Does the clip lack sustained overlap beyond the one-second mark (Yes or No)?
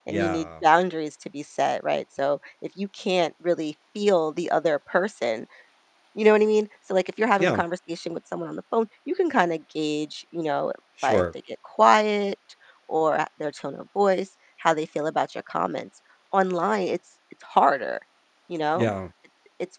Yes